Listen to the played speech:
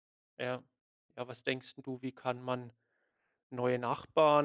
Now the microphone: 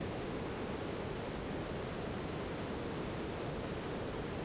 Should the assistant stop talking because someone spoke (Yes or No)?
No